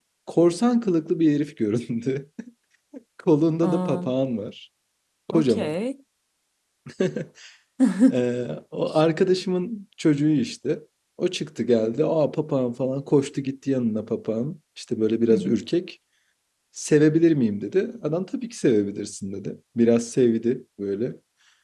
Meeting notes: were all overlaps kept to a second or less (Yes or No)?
Yes